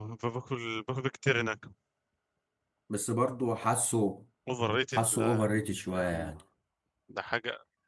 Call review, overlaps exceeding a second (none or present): present